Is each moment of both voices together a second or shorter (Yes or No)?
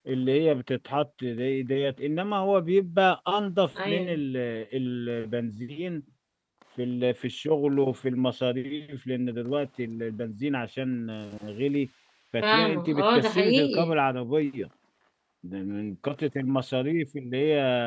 No